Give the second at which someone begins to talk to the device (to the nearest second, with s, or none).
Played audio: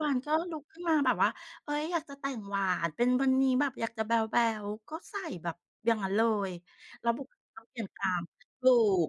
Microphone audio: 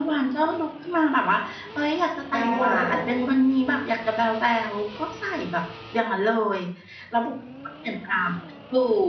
2 s